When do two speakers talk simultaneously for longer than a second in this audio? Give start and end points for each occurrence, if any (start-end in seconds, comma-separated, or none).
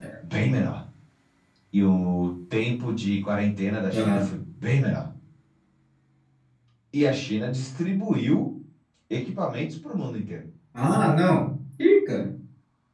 none